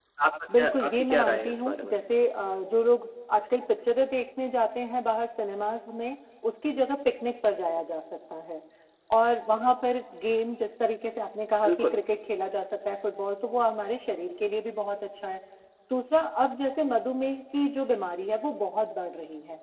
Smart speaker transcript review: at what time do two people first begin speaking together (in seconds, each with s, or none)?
0.6 s